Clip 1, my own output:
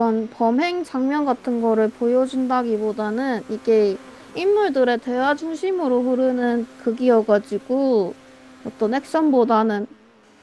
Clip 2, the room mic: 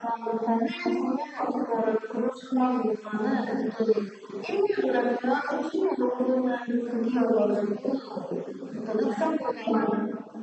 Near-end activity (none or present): none